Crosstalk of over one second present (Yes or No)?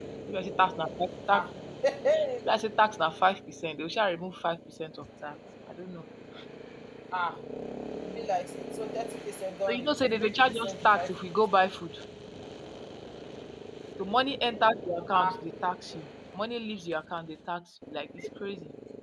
Yes